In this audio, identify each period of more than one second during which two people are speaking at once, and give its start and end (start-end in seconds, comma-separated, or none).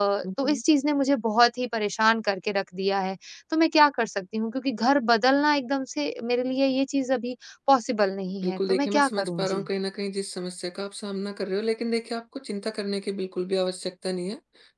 8.4-9.7